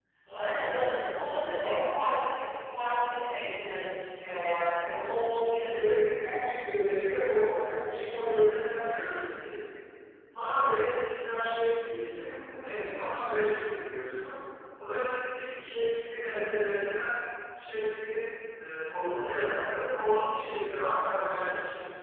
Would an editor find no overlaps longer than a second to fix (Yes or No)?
No